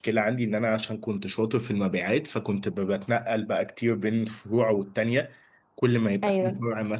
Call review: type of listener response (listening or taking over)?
listening